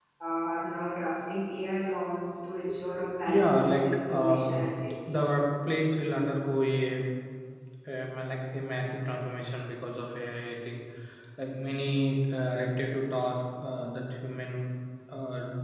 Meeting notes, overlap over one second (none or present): present